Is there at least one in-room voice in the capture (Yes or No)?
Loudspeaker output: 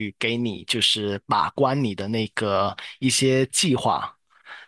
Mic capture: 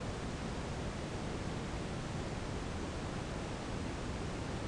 No